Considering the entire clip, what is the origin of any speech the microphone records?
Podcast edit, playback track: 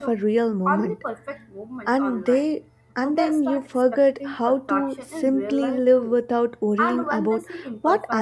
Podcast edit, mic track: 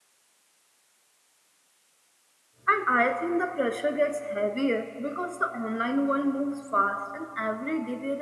user only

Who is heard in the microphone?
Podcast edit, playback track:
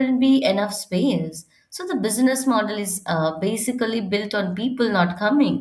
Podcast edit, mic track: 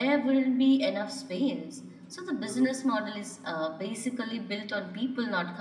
both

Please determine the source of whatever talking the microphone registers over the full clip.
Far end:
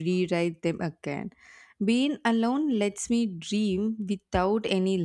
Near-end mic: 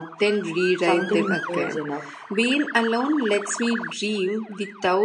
both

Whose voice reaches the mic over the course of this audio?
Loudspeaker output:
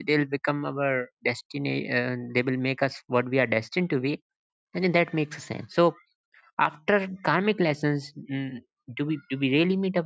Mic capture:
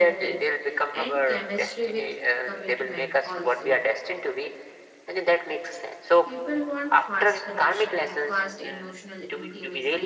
both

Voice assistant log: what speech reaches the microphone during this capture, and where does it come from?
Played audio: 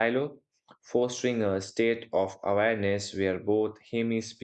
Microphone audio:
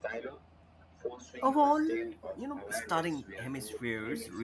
both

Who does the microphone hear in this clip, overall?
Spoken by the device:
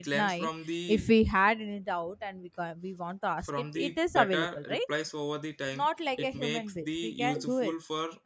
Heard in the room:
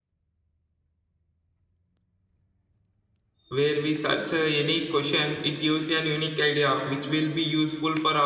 user only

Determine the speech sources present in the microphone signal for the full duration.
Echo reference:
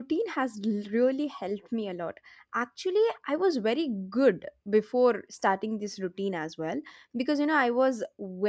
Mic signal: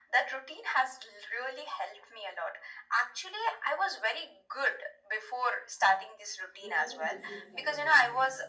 both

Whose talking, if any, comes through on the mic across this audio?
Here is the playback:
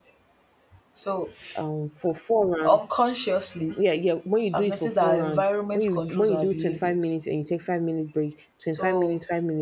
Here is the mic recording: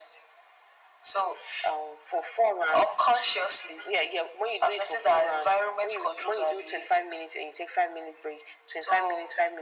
echo only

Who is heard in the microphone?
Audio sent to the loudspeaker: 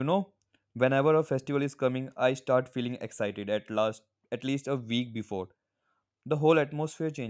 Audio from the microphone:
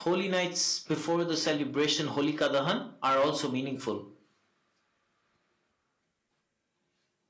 user only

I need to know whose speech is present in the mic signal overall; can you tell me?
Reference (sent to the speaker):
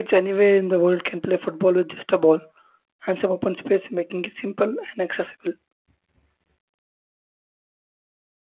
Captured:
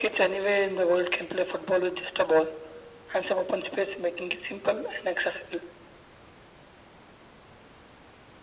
echo only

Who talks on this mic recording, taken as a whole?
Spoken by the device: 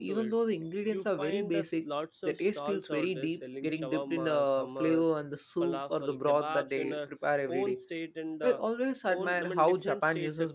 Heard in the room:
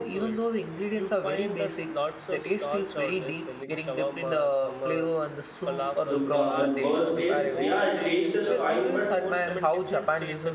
both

